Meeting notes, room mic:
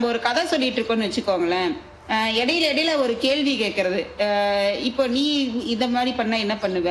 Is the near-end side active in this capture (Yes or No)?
No